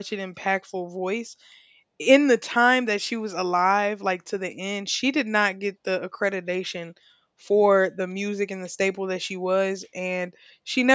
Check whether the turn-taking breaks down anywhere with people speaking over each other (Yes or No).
No